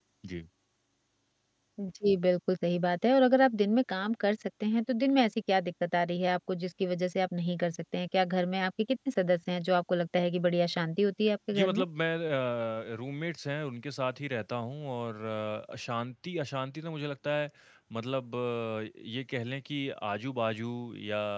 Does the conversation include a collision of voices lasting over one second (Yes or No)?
No